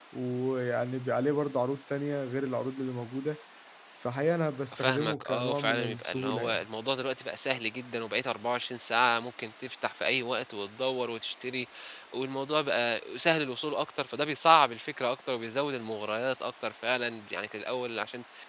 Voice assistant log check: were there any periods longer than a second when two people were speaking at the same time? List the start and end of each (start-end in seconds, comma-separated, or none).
4.8-6.6